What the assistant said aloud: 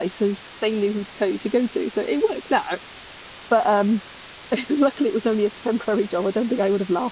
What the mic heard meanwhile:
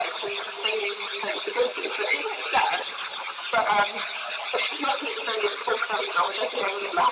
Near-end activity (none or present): none